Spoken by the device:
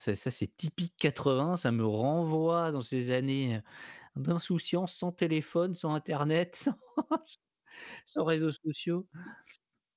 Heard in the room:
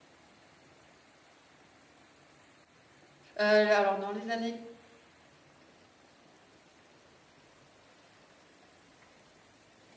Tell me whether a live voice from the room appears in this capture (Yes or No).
Yes